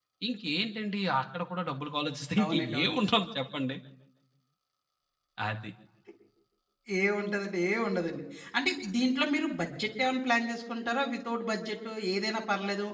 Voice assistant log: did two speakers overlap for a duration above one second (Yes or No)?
No